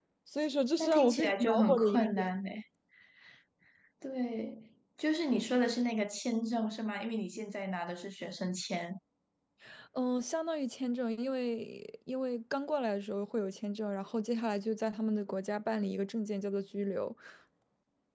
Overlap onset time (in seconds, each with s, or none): 0.8 s